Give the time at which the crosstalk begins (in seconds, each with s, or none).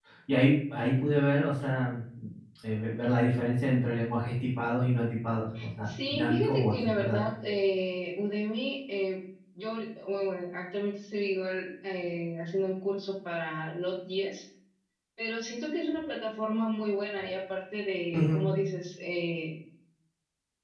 5.8 s